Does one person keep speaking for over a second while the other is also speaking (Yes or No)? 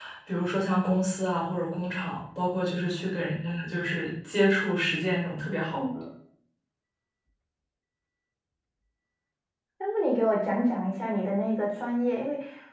No